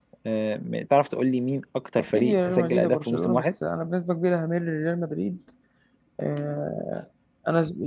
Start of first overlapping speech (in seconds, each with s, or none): 2.0 s